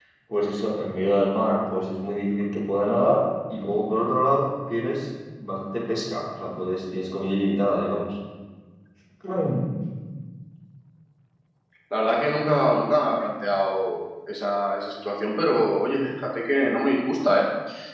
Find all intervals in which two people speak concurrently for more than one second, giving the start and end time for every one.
none

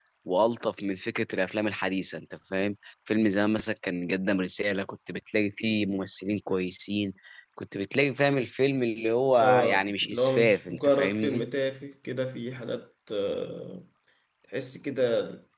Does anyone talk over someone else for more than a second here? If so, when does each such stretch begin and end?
9.4-11.4

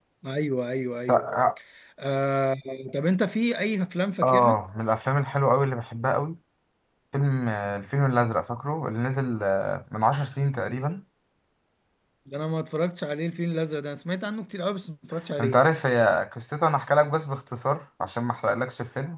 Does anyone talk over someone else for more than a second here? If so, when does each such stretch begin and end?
none

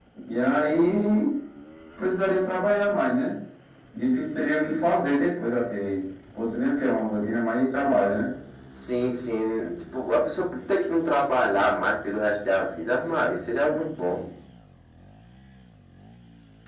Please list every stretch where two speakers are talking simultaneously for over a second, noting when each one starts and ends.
none

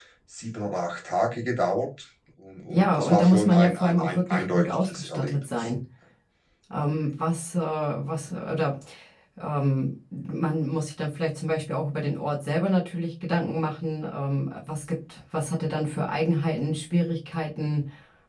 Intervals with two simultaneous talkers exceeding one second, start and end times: 2.7-5.7

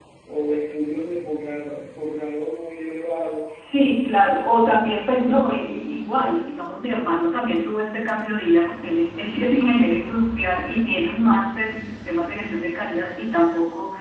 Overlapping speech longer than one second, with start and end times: none

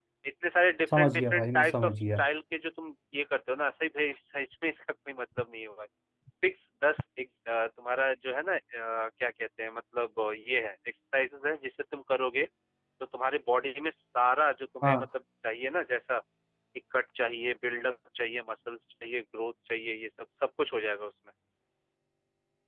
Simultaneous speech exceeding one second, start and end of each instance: 1.0-2.2

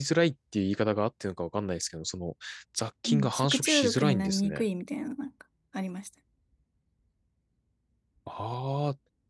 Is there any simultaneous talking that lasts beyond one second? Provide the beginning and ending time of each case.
3.1-4.6

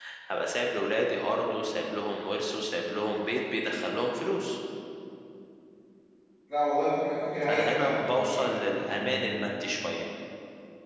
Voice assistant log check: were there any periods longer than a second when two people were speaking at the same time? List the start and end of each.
7.4-9.3

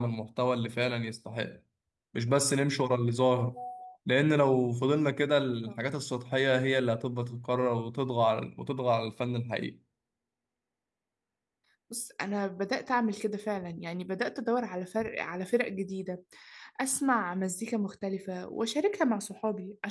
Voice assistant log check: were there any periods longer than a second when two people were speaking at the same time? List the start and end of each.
none

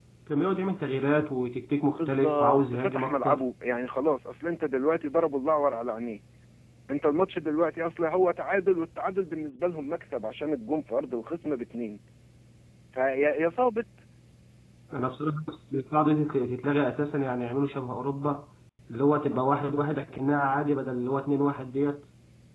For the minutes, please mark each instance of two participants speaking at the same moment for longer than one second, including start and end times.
2.0-3.4

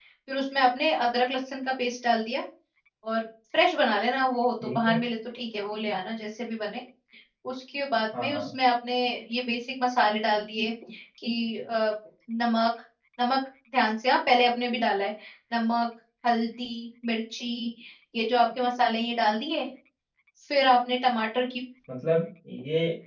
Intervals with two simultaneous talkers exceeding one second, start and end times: none

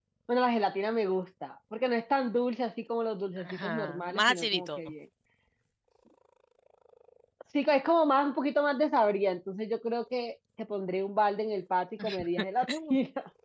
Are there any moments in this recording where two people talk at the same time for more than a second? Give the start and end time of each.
3.4-4.8

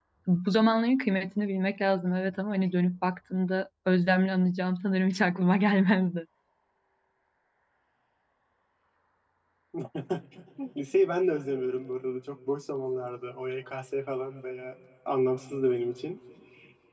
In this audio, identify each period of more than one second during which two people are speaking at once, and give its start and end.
none

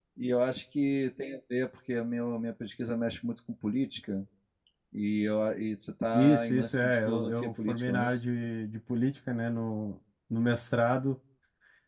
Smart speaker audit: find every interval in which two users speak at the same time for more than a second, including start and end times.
6.1-8.2

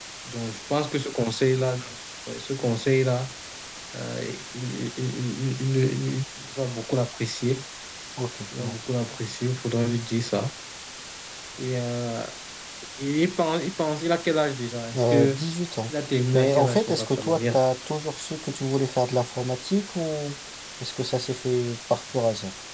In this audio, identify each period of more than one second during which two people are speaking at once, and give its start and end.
16.3-17.6

